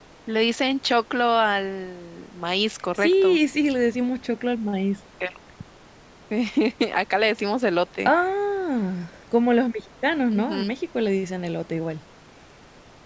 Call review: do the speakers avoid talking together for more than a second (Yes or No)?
Yes